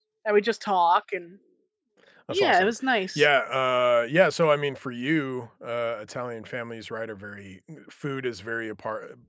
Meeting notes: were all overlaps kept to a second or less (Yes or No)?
Yes